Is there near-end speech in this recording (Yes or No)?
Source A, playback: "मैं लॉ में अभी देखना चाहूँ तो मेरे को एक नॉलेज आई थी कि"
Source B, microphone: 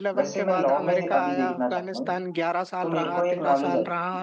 Yes